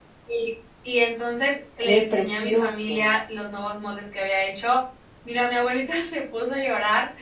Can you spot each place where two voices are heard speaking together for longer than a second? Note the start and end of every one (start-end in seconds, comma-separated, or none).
1.8-3.2